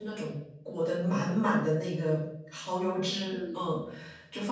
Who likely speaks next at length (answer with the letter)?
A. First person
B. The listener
A